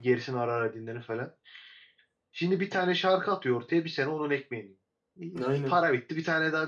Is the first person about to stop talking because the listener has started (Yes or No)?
No